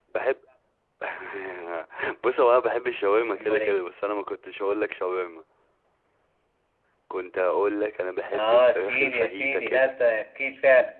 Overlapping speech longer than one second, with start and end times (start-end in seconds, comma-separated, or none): 8.3-9.9